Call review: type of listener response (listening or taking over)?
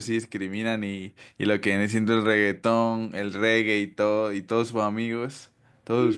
taking over